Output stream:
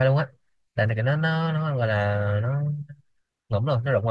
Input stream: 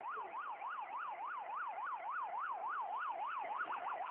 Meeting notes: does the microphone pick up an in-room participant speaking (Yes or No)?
No